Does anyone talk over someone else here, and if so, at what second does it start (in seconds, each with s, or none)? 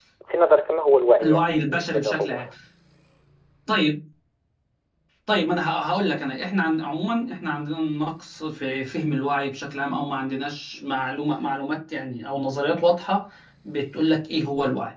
1.2 s